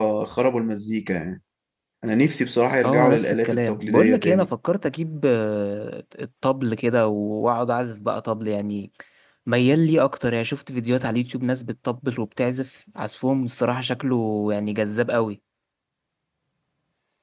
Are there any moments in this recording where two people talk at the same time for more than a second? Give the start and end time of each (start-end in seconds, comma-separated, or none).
2.8-4.5